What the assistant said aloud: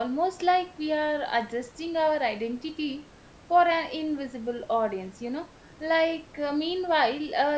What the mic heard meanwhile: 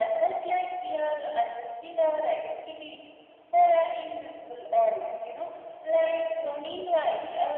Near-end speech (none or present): none